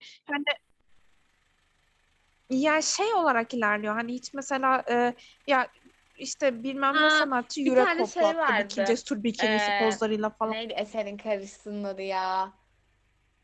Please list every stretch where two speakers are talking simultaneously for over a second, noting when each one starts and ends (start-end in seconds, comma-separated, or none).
7.7-9.0